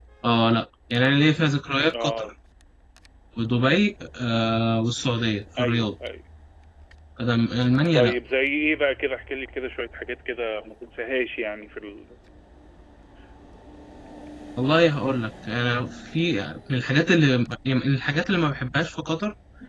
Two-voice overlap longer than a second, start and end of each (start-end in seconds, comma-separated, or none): none